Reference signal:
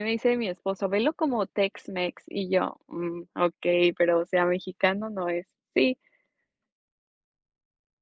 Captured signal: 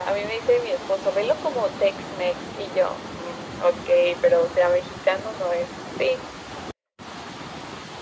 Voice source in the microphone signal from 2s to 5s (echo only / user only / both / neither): echo only